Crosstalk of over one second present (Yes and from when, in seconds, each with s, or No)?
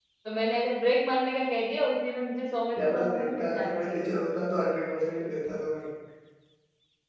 Yes, from 2.8 s